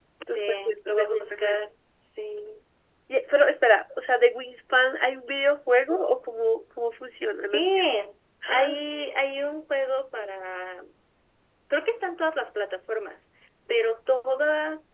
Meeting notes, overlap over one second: present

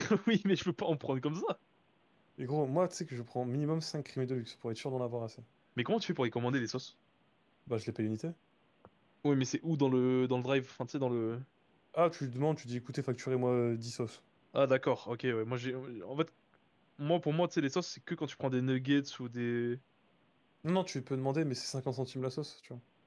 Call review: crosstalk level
none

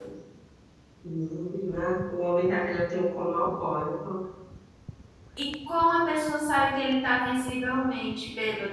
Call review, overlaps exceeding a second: none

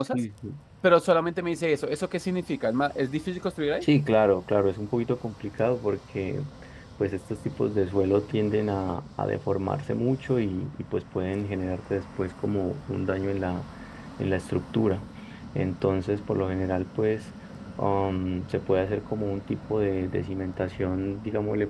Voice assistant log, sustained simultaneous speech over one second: none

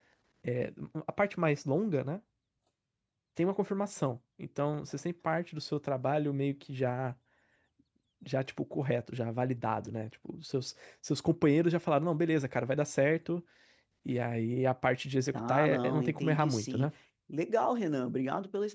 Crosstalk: present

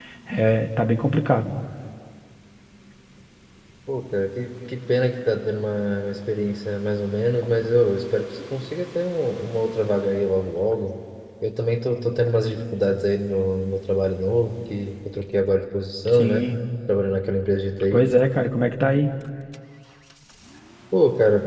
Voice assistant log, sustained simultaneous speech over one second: none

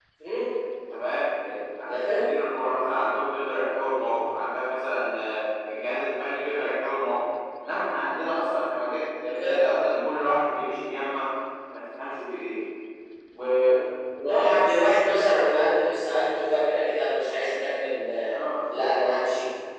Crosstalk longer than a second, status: none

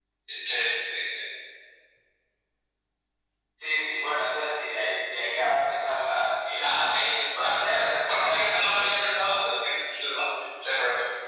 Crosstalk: present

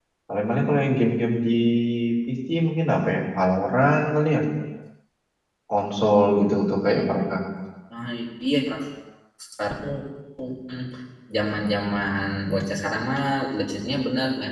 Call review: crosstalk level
none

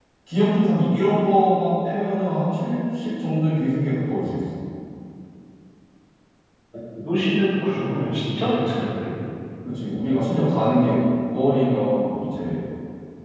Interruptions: none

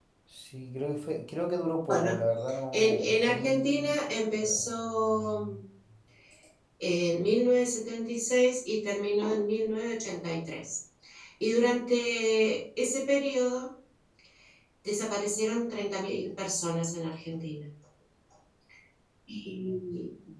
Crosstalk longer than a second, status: present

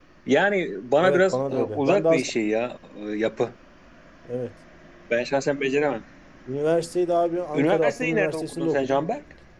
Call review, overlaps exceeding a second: present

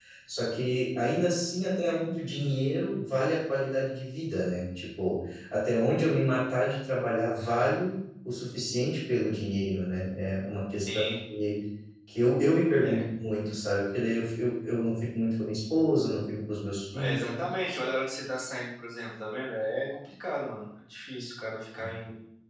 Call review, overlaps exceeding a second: none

